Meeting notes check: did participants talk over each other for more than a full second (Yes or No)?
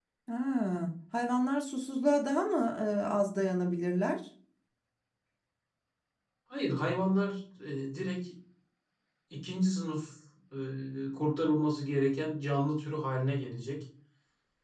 No